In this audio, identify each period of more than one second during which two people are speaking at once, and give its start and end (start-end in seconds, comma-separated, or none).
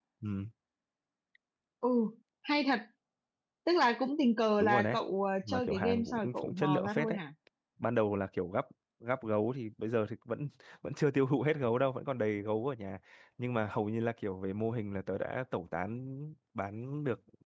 5.4-7.2